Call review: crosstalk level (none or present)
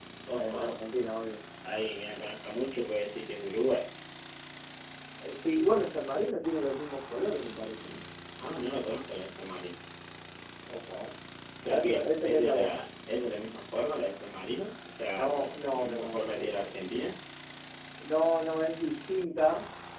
present